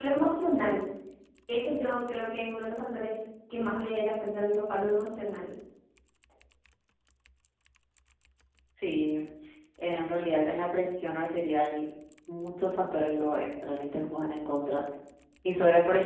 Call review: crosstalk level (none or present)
none